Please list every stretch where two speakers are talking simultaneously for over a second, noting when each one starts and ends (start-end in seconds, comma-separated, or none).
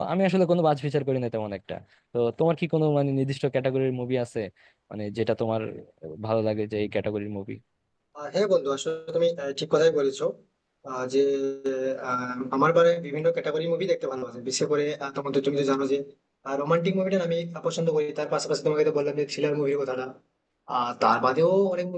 none